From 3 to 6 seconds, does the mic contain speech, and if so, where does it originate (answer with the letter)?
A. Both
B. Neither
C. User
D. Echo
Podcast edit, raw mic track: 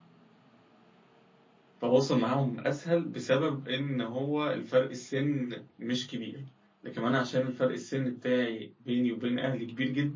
C